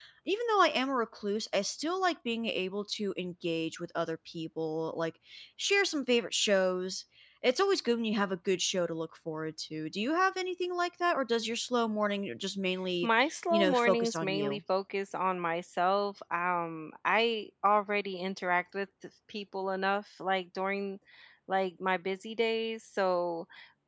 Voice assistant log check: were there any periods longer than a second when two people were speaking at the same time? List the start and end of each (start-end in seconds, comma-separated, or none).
13.0-14.6